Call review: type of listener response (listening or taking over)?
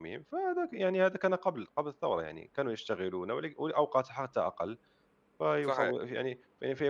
listening